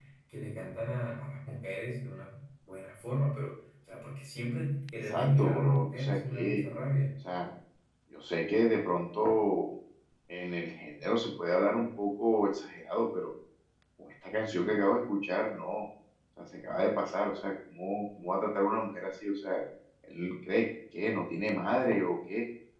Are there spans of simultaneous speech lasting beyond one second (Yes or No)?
Yes